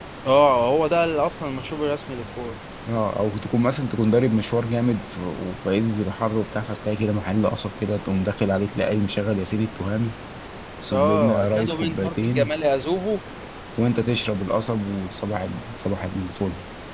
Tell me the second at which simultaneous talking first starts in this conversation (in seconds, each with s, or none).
10.9 s